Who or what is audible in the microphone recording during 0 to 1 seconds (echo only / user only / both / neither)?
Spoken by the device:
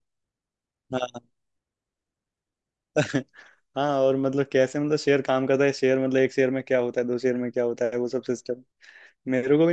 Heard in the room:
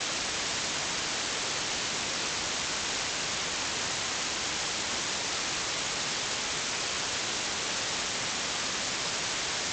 neither